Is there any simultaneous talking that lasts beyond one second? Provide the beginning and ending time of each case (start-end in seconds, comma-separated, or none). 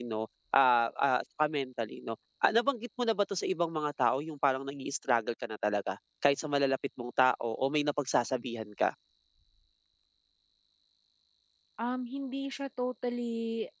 none